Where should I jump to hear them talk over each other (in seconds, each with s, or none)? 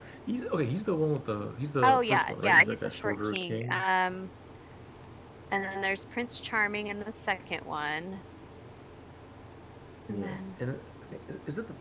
1.8 s